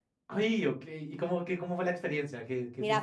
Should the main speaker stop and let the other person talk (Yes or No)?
Yes